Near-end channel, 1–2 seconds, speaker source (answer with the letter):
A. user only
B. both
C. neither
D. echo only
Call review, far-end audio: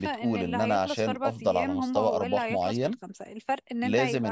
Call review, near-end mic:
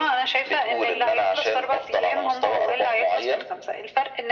D